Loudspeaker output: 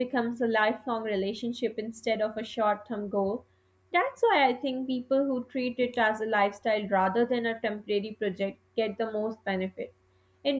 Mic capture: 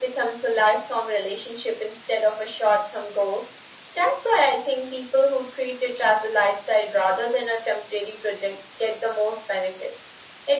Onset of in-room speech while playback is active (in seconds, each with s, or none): none